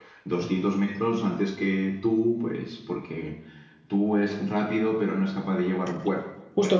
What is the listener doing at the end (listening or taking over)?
taking over